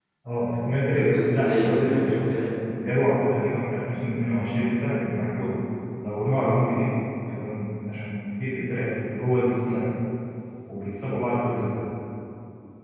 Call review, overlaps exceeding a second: present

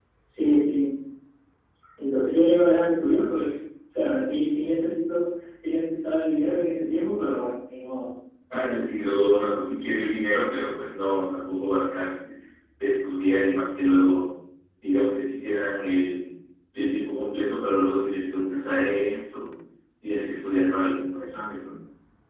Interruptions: none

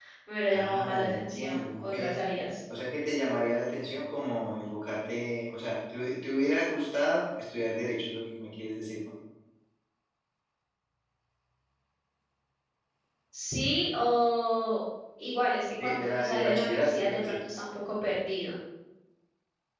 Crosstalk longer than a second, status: present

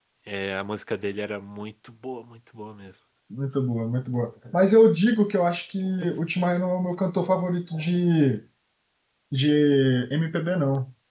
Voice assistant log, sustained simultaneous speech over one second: none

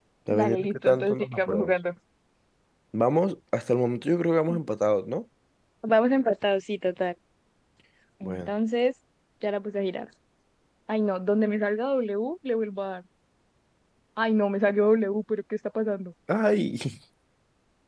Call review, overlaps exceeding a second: present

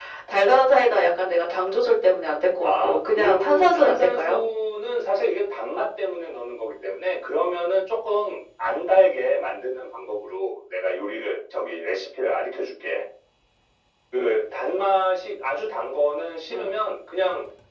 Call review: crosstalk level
present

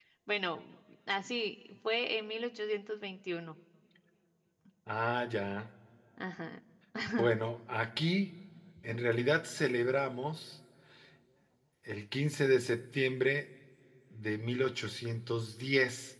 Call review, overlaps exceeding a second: none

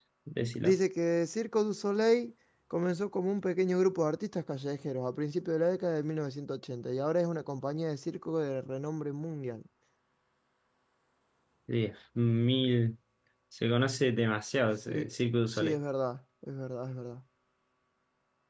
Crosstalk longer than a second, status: none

